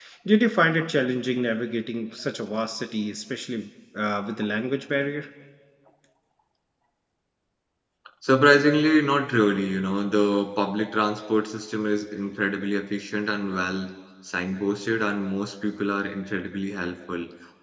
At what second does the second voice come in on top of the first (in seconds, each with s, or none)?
none